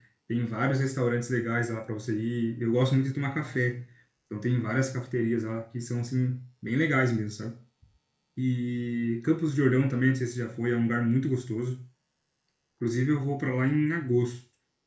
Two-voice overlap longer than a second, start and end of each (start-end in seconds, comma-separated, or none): none